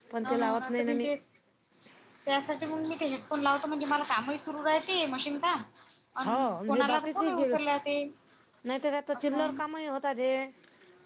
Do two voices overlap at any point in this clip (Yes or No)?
Yes